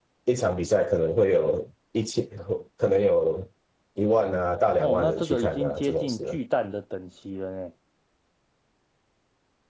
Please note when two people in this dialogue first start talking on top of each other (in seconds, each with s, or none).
4.8 s